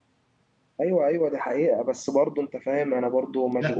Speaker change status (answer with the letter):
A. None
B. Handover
B